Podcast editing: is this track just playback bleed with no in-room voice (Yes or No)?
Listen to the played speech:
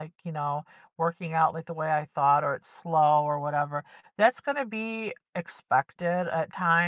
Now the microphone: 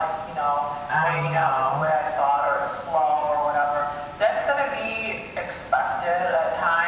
No